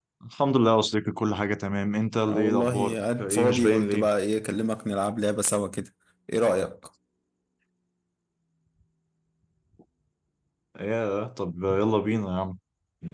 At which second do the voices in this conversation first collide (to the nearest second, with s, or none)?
2 s